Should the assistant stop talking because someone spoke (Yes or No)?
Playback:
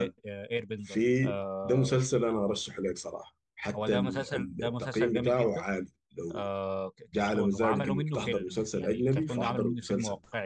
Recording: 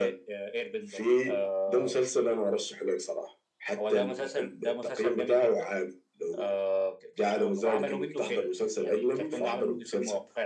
No